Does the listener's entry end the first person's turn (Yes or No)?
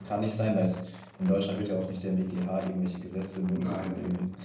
Yes